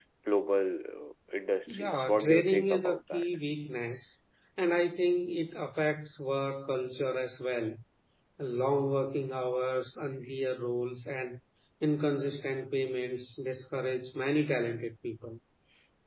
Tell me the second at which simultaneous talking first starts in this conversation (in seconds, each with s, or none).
1.7 s